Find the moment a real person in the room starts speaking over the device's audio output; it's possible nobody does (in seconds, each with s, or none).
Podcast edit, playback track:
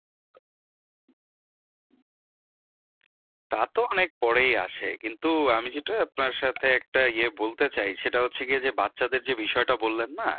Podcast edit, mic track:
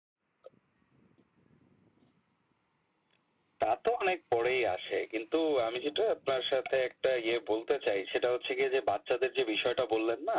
none